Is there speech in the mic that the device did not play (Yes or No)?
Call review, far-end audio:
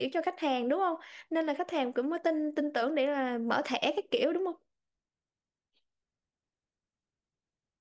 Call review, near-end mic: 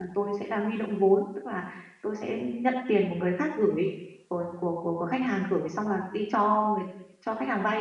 Yes